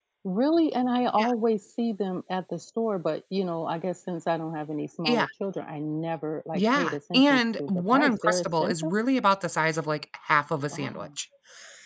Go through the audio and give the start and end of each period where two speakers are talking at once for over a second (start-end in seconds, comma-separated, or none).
6.5-8.9